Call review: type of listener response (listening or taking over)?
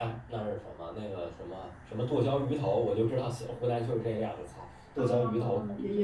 taking over